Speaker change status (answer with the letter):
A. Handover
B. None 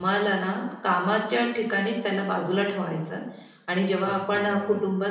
B